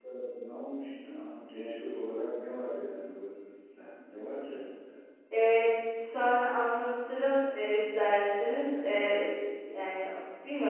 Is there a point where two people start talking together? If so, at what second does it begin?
none

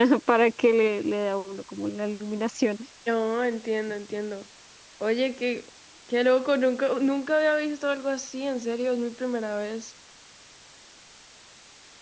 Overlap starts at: none

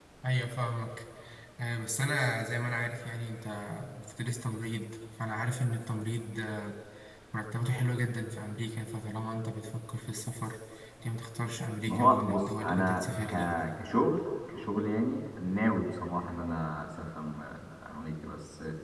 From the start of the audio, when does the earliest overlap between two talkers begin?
12 s

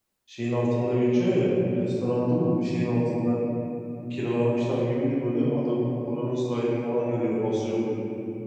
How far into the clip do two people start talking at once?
none

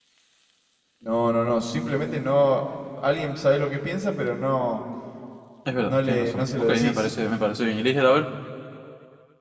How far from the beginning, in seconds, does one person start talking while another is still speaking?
6 s

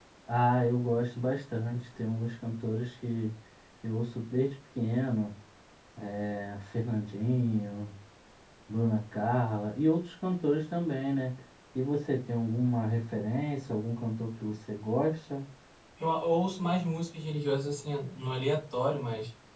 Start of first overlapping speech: none

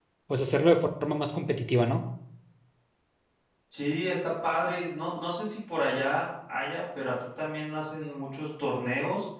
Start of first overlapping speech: none

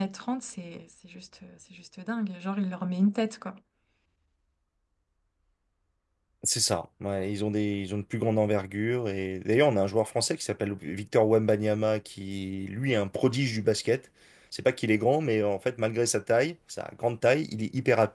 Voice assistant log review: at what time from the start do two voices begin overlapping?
none

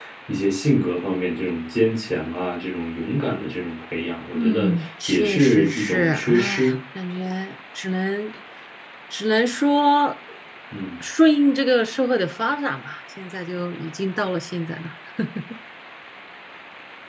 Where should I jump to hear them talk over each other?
4 s

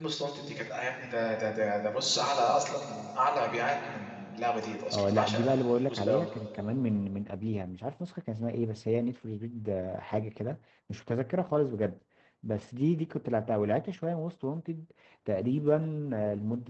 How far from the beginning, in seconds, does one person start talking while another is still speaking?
5 s

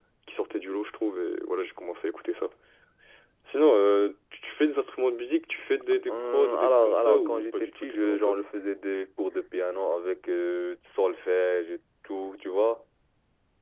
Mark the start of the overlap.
6 s

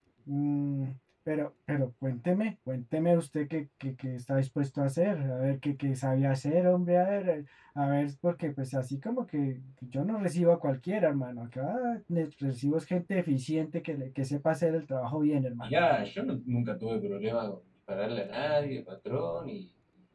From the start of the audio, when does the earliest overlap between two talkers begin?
none

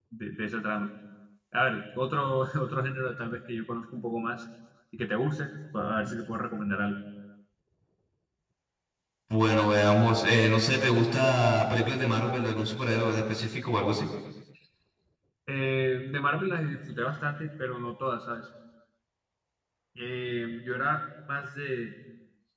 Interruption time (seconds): none

